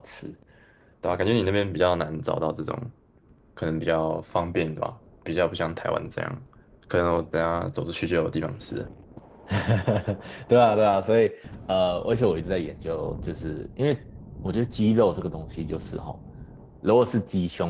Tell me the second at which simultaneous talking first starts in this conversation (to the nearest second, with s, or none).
none